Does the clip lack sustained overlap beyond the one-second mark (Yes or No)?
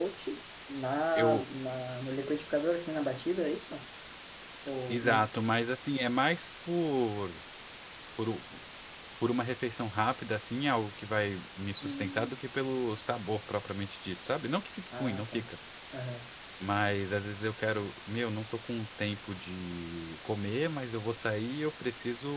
Yes